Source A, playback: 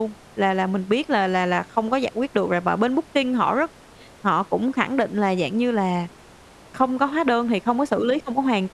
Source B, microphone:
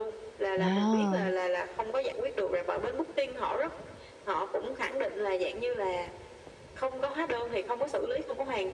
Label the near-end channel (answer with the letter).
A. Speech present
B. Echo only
A